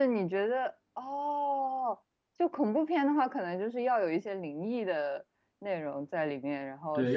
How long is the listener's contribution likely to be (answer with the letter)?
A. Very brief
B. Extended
B